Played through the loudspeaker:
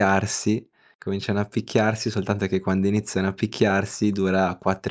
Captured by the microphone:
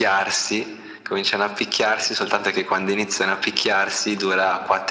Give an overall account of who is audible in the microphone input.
echo only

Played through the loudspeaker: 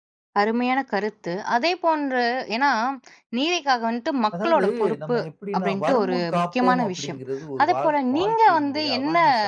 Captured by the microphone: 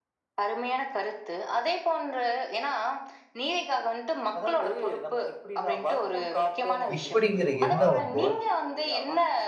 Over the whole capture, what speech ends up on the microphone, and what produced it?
both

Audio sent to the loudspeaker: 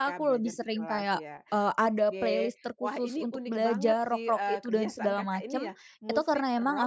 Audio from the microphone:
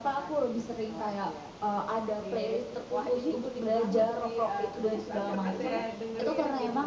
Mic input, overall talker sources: both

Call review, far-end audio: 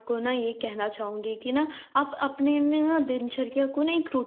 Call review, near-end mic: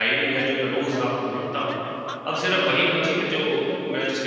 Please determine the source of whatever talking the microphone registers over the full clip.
both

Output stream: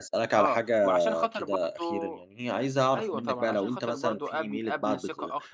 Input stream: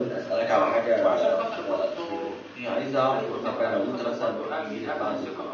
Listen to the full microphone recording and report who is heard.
echo only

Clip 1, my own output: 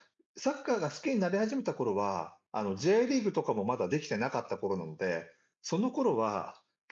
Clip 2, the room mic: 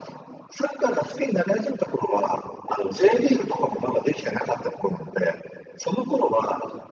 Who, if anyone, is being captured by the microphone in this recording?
echo only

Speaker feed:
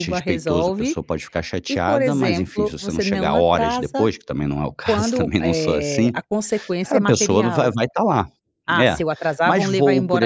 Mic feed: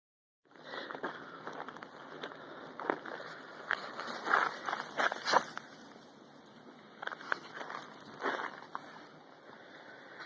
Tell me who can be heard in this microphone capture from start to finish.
neither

